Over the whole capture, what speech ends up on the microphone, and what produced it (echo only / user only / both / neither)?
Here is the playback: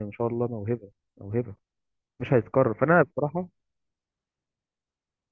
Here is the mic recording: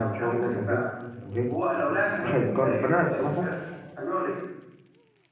both